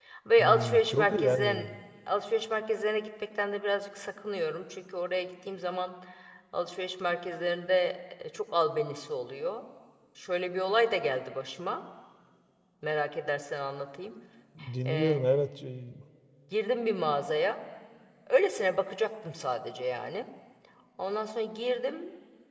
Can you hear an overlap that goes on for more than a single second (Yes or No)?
Yes